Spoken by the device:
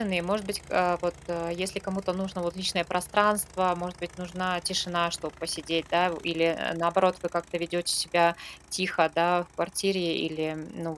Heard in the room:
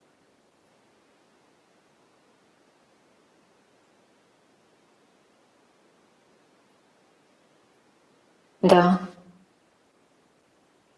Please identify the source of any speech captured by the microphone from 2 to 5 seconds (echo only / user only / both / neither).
neither